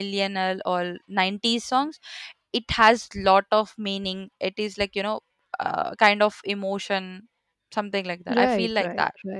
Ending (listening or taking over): taking over